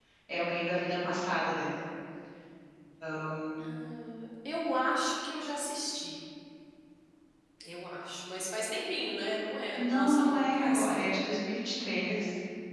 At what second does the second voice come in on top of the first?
10 s

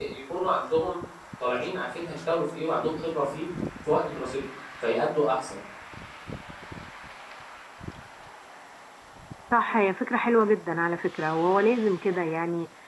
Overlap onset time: none

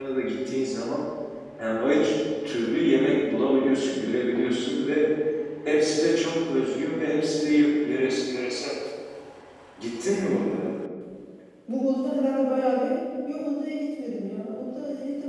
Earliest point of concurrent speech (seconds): none

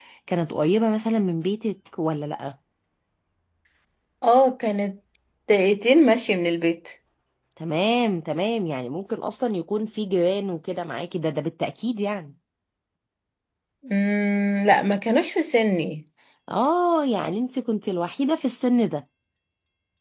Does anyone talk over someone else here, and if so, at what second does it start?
none

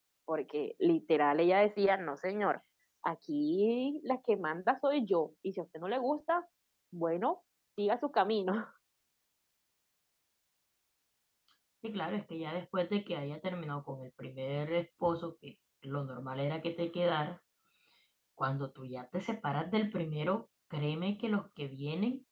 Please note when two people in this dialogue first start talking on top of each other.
none

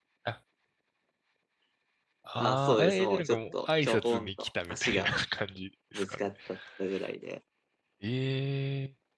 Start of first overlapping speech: 2 s

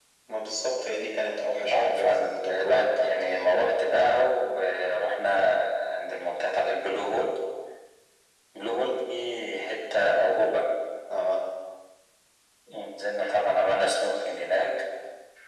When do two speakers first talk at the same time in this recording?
2 s

